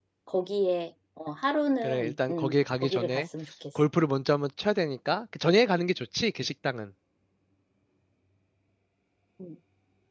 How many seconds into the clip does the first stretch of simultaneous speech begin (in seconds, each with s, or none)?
1.8 s